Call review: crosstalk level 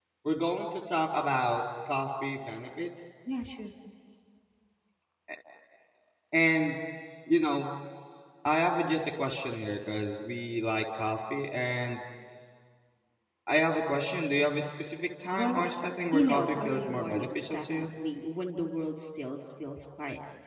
present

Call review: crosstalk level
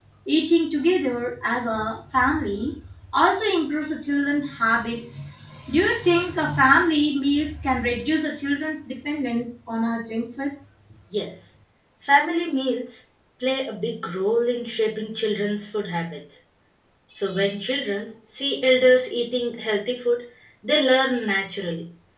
none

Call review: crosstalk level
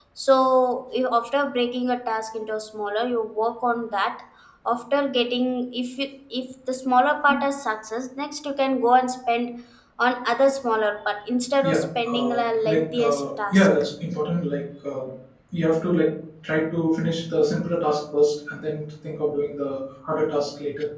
present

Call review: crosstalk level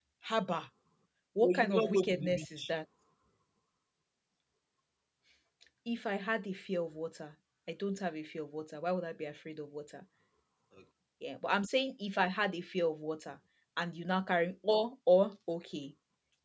present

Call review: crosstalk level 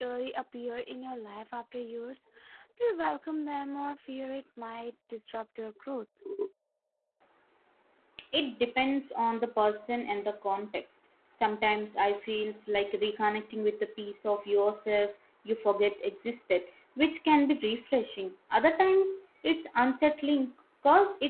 none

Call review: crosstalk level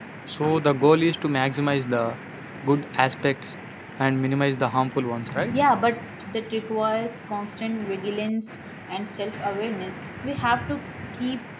none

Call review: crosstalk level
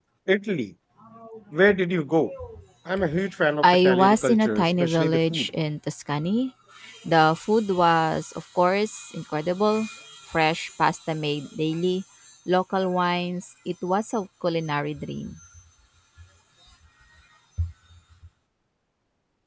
present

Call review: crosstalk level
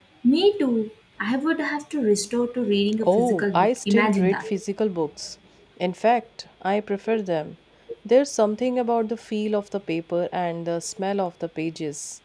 present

